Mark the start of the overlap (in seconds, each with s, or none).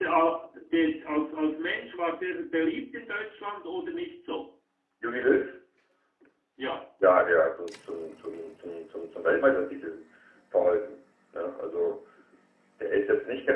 none